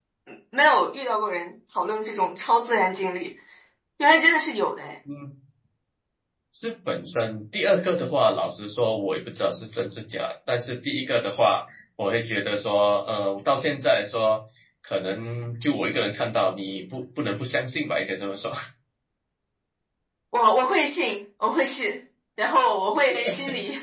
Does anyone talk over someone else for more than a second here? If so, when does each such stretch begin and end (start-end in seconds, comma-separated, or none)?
none